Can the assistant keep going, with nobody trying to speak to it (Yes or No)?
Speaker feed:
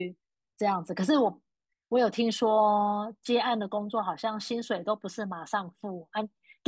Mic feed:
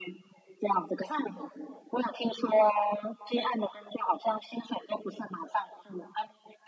Yes